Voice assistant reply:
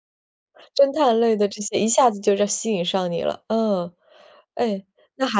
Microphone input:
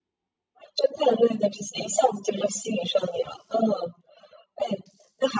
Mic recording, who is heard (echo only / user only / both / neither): echo only